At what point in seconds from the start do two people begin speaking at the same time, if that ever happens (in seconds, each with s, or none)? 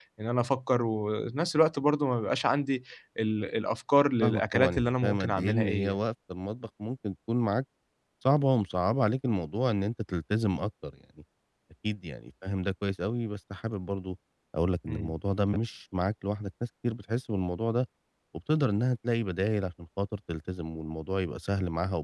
4.2 s